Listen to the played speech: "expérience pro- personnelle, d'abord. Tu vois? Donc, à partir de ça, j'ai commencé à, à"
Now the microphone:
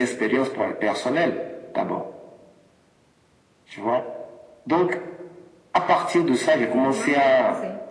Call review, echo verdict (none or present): present